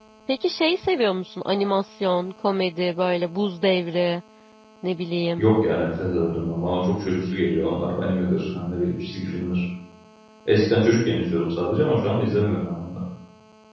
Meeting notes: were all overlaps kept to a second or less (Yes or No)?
Yes